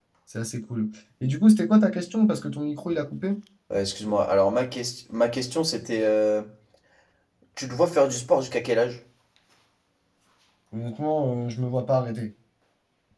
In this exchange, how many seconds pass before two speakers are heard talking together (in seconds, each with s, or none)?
none